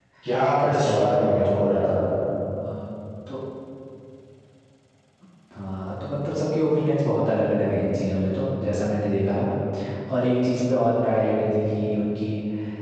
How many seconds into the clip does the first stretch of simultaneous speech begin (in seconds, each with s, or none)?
0.6 s